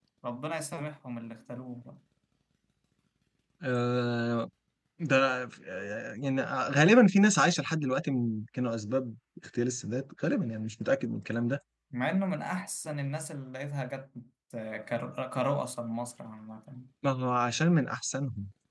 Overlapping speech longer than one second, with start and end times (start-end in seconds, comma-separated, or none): none